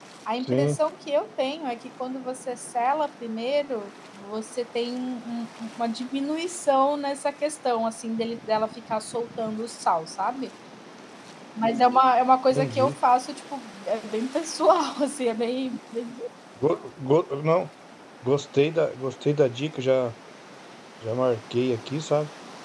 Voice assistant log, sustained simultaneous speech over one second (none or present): none